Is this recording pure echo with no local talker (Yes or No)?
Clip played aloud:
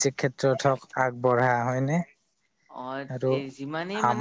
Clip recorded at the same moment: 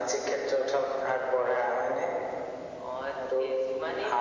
Yes